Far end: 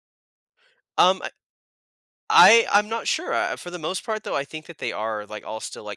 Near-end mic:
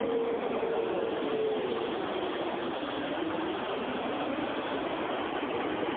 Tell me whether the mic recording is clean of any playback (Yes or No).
Yes